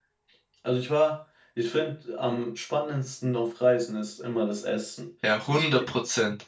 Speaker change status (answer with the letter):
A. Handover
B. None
A